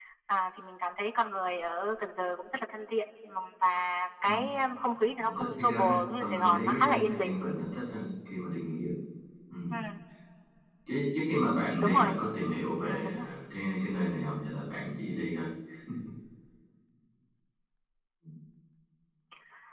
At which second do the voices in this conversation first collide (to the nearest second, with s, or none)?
5 s